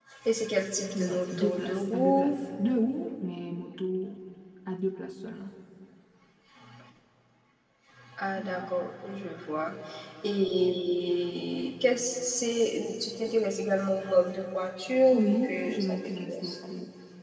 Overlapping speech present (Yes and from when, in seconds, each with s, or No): Yes, from 0.9 s